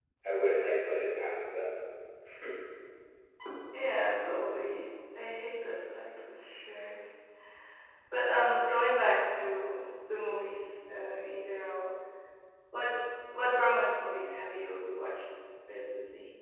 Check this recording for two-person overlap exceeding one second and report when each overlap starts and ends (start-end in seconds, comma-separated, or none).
none